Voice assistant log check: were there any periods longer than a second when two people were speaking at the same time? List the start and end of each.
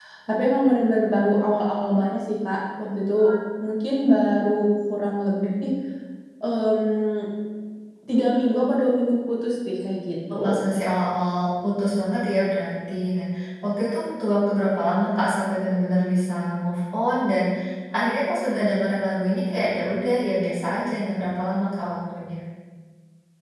none

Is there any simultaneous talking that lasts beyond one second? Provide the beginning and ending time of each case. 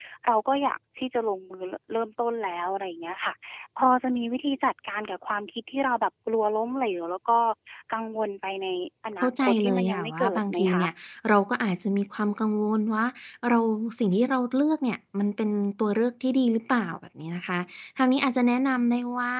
9.2-10.8

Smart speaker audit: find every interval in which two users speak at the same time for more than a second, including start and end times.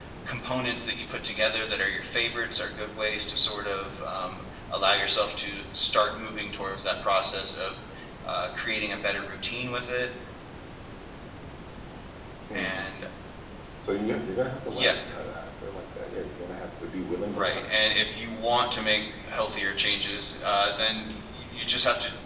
none

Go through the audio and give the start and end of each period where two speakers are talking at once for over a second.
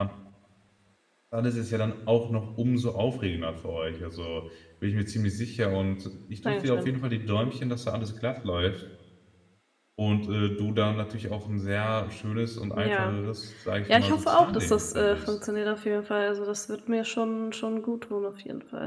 13.9-15.3

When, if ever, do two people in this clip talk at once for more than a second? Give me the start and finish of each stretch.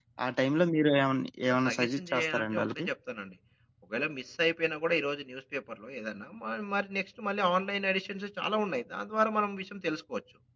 1.6-2.8

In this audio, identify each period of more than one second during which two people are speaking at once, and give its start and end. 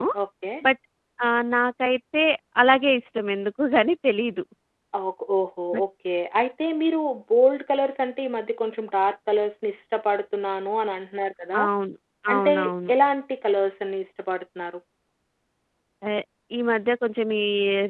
none

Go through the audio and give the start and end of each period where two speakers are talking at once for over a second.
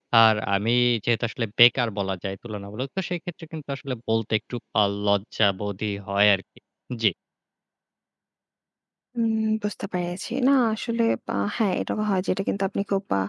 none

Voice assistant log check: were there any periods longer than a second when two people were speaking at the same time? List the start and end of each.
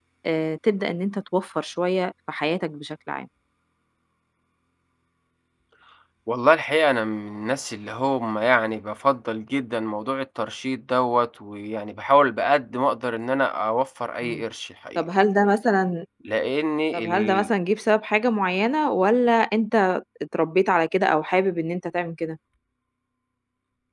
none

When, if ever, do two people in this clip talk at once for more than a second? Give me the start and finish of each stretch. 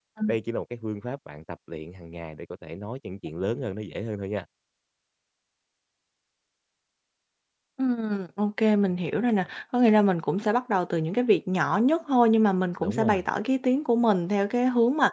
none

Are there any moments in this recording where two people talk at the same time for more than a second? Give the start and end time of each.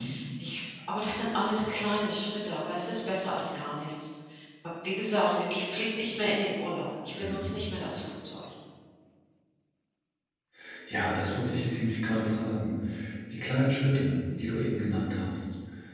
none

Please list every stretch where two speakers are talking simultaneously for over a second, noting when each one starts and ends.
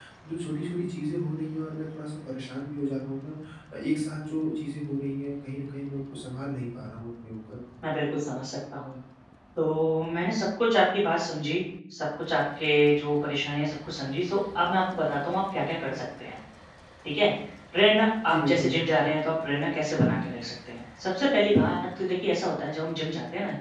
none

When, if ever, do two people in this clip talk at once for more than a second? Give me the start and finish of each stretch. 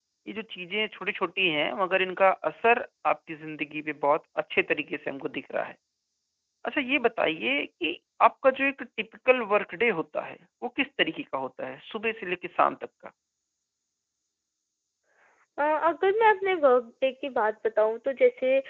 none

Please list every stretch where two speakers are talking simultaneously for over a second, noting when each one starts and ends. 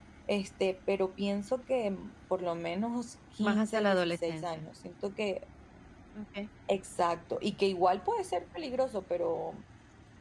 3.4-4.6

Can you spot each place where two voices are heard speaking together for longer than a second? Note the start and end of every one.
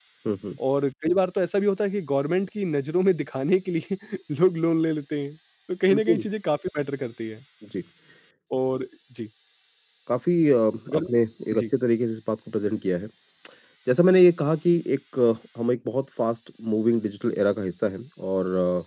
none

